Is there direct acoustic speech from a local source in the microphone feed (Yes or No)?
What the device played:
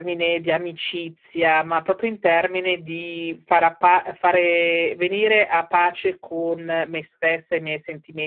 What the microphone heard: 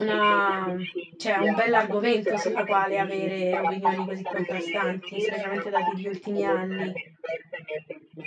Yes